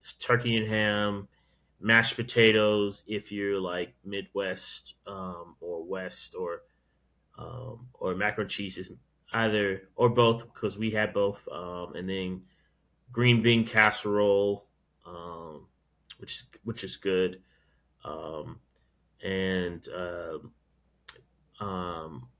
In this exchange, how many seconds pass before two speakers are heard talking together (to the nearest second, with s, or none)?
none